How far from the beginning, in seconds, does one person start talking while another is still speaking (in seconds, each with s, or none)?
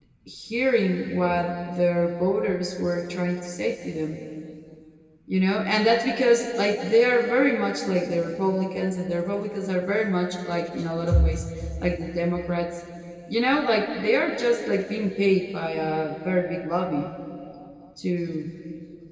none